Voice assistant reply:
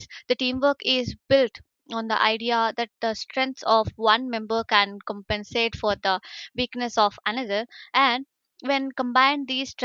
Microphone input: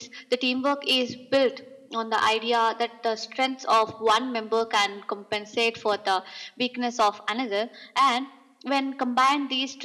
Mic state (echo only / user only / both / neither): echo only